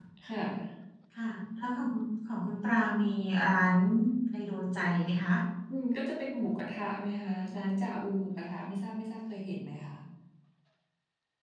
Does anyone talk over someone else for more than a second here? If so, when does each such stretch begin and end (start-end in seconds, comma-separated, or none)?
none